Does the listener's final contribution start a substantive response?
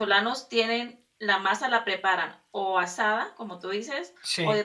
No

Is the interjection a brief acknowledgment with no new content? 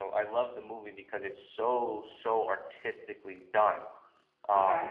Yes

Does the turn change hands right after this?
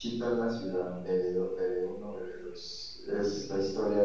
No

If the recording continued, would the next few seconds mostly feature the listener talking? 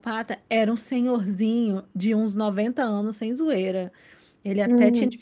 No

